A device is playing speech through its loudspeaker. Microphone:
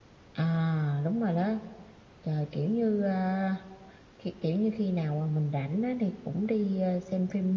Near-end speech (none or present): none